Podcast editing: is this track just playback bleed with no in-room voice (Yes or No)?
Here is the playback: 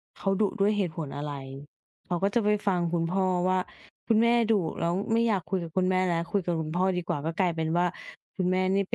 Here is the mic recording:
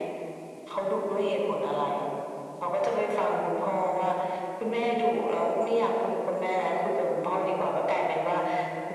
Yes